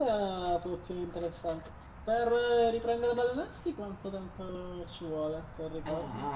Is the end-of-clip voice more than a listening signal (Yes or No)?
Yes